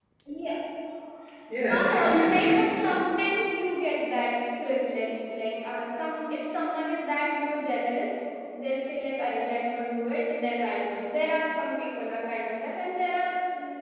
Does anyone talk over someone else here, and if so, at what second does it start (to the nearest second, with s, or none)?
2 s